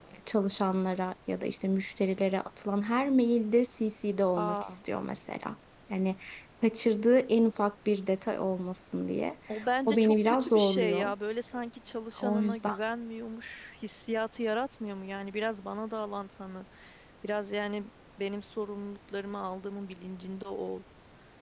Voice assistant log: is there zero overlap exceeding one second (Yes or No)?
No